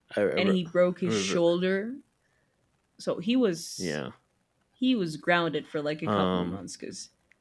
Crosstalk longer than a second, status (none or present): none